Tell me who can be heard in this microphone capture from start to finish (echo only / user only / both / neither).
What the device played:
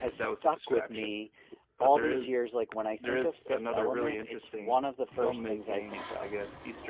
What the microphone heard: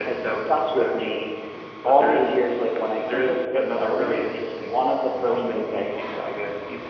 echo only